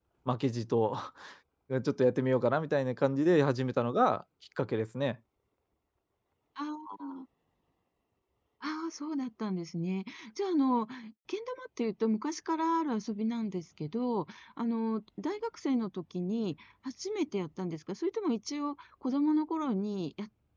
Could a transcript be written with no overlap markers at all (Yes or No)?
Yes